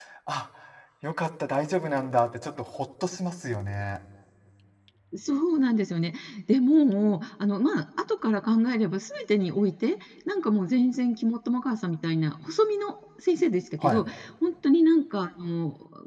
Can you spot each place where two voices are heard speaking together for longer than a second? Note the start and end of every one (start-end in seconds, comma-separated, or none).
none